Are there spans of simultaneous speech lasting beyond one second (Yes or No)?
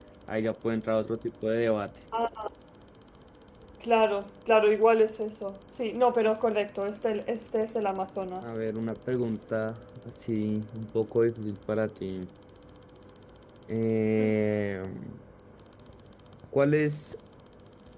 No